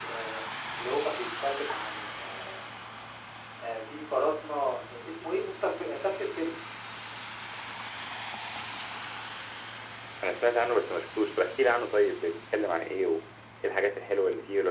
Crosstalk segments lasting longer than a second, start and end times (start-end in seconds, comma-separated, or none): none